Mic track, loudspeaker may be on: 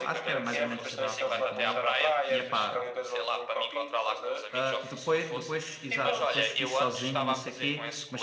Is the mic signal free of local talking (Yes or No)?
No